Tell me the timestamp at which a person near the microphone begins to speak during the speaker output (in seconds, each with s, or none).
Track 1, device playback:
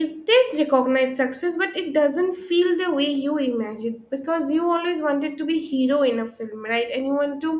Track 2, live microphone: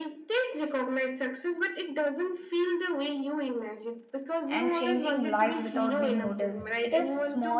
4.5 s